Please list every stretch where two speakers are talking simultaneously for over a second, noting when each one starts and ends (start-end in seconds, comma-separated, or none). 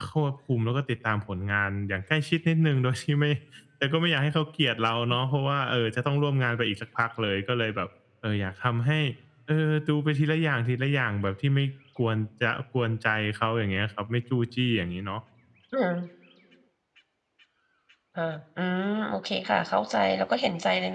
none